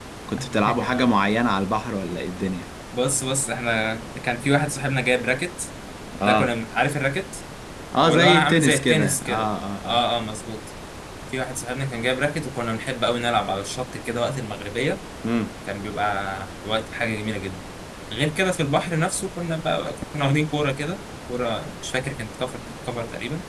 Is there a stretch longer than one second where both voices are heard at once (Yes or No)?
Yes